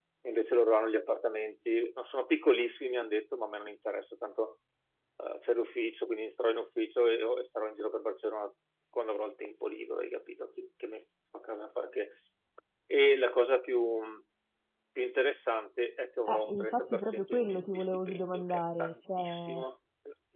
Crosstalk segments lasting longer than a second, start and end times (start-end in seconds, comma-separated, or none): 16.3-19.6